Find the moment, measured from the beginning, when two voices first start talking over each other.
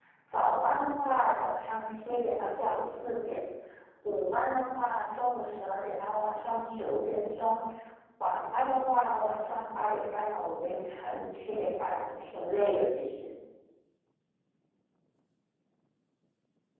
none

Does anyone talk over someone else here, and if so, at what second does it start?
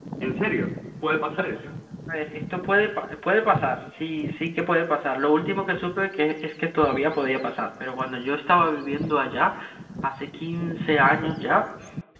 none

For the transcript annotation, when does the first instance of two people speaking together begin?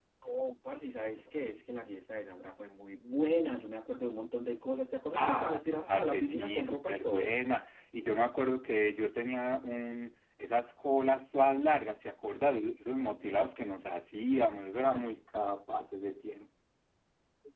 5.1 s

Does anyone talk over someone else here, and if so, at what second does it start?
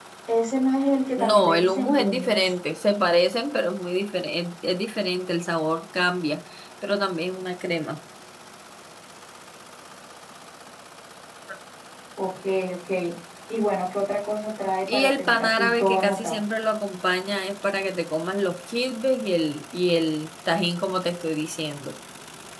1.2 s

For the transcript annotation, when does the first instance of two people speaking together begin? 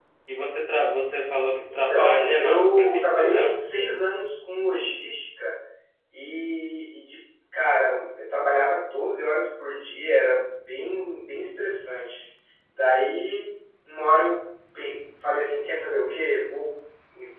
1.7 s

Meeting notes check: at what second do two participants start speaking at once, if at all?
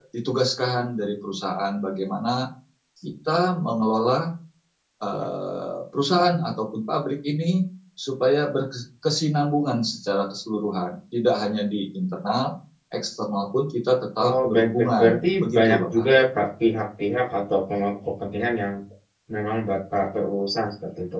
14.2 s

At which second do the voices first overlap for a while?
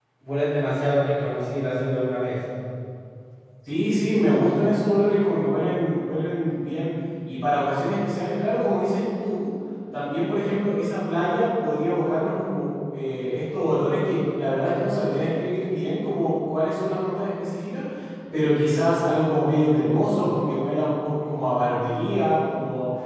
none

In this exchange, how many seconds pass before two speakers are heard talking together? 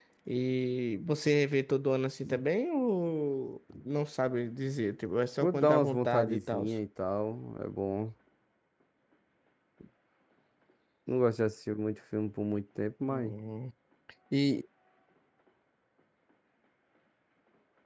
5.4 s

